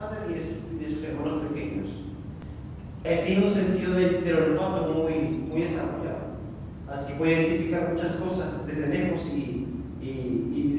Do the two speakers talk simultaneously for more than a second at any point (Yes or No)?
No